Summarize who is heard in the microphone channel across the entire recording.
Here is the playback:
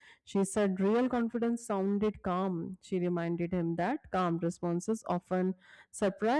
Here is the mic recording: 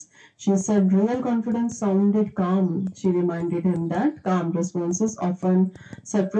echo only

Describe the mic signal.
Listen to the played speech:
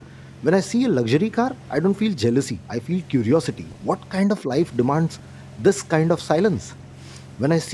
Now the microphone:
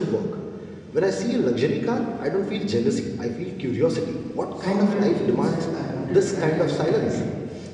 both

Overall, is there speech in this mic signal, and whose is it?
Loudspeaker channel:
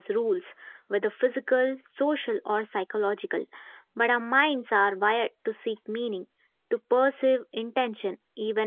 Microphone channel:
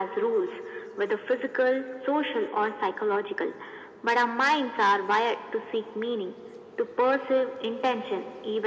echo only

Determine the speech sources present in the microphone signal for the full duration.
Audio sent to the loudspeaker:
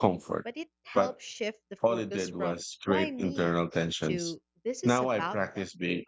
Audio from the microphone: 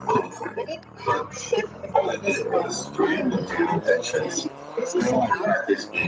echo only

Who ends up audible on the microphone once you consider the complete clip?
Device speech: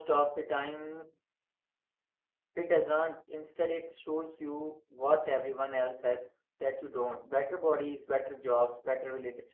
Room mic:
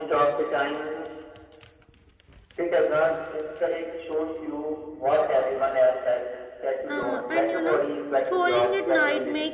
both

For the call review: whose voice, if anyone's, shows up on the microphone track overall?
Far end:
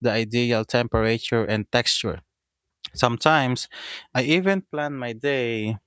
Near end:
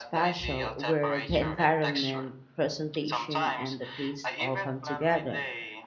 both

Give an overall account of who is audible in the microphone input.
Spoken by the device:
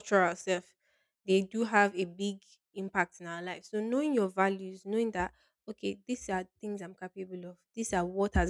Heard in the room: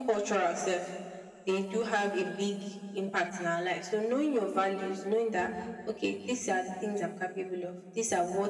echo only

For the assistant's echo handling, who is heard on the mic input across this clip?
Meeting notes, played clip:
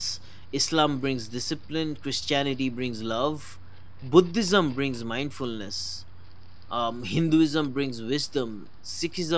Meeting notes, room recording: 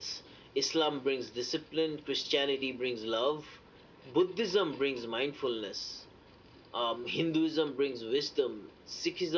echo only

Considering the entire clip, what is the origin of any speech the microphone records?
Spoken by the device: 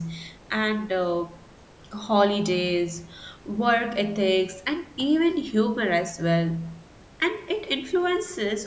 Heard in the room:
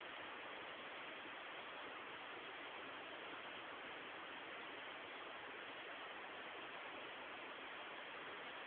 neither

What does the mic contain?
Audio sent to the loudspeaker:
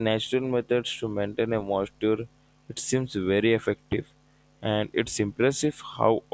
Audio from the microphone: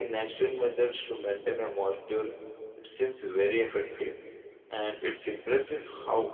echo only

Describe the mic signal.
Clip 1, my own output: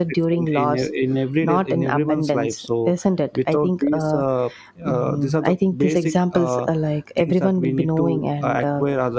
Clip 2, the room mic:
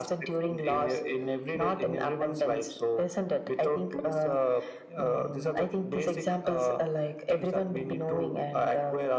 echo only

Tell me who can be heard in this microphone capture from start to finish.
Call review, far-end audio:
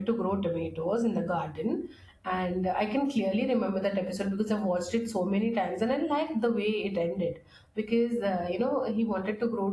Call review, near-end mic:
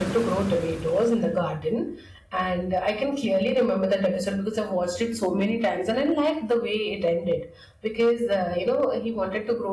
echo only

